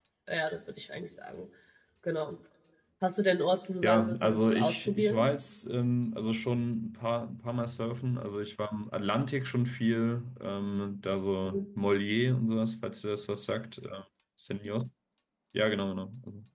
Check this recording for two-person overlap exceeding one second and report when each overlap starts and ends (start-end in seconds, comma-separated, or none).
3.8-5.3